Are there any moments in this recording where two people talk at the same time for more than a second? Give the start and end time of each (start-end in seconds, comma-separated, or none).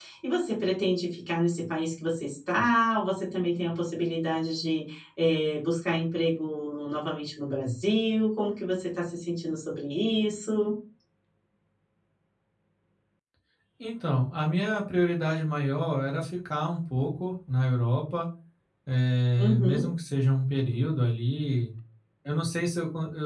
none